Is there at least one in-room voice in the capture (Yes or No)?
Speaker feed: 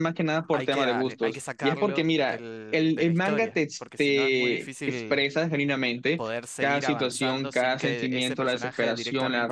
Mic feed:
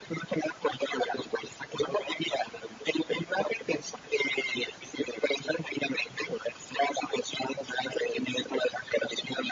No